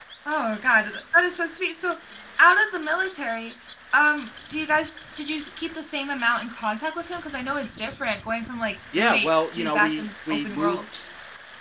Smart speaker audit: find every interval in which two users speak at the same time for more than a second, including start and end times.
9.0-10.8

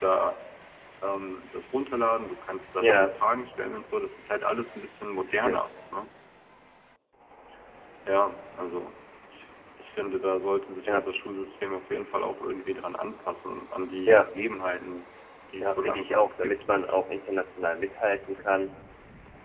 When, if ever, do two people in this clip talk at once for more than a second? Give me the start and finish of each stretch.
15.6-16.9

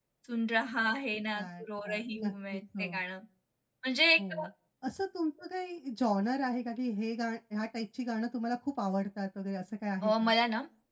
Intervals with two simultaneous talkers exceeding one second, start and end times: 1.4-3.0

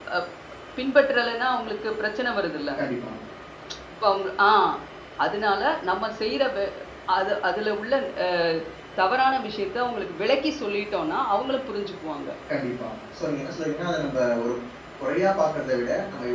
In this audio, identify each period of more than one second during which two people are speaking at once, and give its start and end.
none

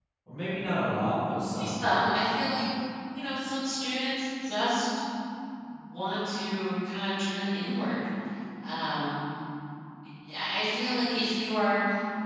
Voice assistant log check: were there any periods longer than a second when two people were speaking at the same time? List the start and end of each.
none

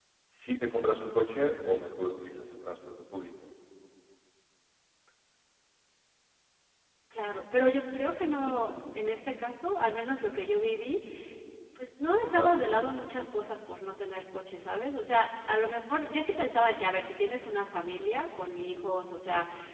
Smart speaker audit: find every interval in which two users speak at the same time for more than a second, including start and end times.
none

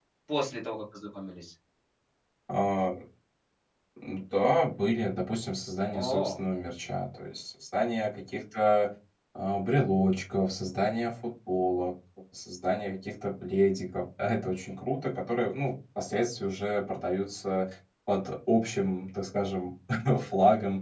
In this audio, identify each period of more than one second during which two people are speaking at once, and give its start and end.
none

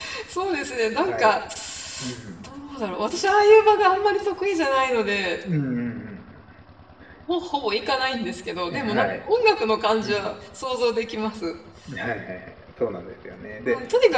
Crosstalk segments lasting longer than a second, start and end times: none

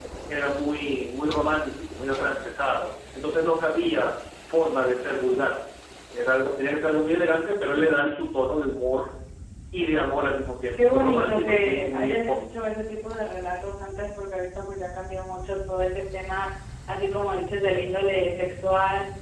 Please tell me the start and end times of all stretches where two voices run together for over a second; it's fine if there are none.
10.7-12.3

